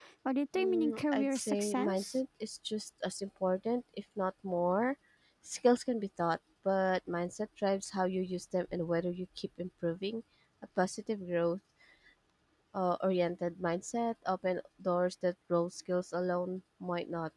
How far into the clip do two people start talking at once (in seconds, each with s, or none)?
0.6 s